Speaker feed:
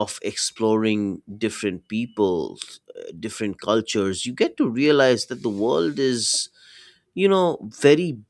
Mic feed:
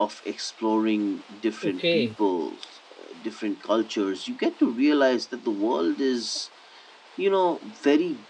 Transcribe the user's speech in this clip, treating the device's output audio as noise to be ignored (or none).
Okay,